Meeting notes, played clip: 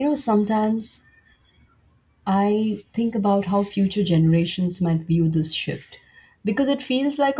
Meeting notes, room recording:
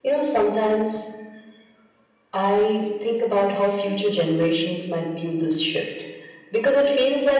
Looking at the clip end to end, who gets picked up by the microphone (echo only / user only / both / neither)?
echo only